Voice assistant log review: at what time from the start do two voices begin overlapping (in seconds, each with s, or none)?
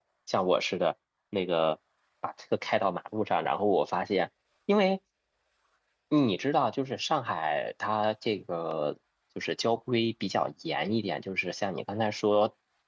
none